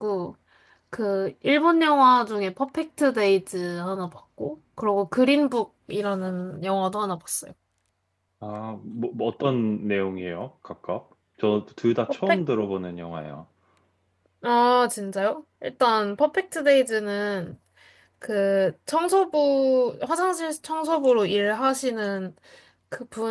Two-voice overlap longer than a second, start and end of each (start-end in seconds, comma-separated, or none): none